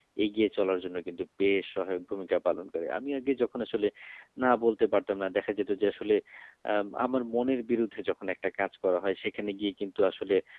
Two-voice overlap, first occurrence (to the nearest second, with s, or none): none